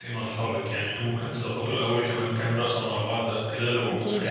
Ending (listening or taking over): listening